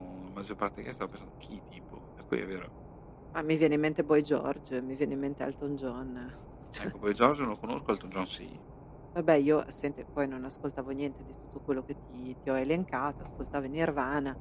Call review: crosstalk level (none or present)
none